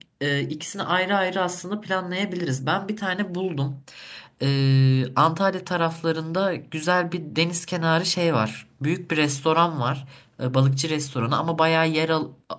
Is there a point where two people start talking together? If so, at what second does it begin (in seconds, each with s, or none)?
none